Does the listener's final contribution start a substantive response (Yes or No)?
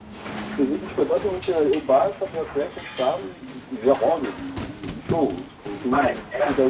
Yes